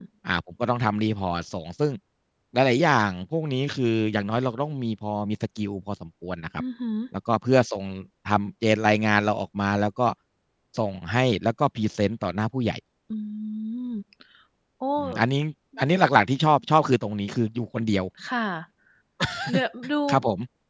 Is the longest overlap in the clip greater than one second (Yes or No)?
No